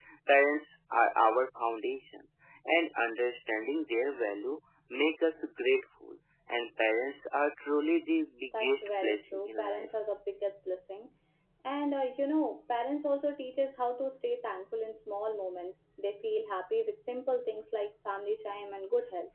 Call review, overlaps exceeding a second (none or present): present